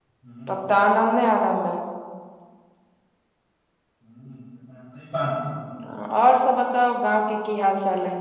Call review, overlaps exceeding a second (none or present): none